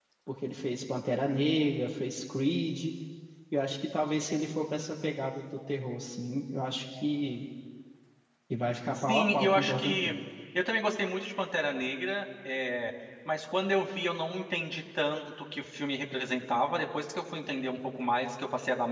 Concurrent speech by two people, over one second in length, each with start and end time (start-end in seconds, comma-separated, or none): 8.9-10.2